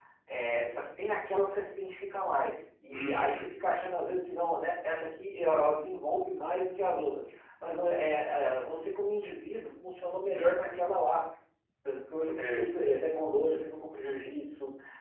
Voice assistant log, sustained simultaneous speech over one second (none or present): none